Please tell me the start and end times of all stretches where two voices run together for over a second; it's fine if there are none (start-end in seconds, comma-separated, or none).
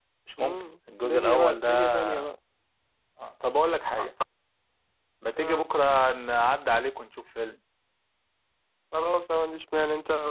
1.0-2.3